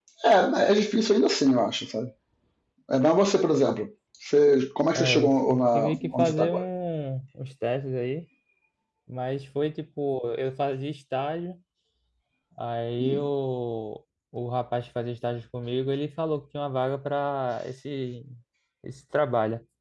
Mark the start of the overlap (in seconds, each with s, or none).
4.9 s